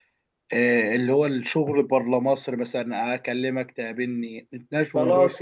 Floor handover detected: Yes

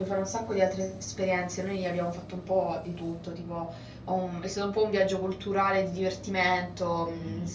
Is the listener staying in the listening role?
Yes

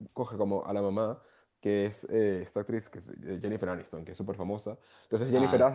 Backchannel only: Yes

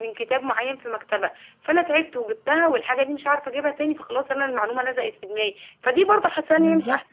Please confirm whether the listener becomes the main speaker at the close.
No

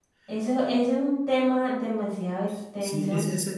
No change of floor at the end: No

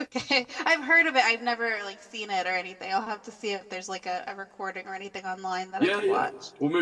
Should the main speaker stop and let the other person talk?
Yes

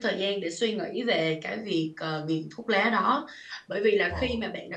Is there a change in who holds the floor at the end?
No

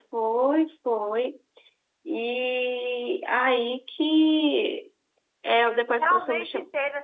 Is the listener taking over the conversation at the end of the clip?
Yes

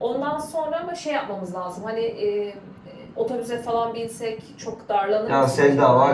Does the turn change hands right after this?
Yes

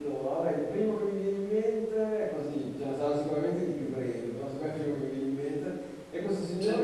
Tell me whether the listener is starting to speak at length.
No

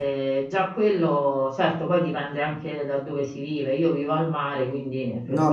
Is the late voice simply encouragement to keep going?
No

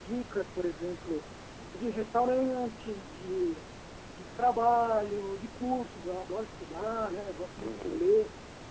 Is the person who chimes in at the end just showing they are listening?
Yes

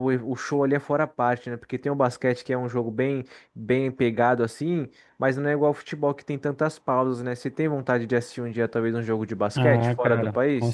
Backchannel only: No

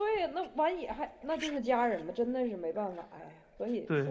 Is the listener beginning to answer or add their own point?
Yes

